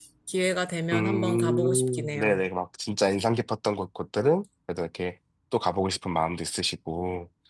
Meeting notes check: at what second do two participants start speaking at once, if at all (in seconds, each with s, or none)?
0.9 s